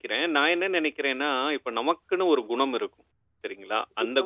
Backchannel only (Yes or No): Yes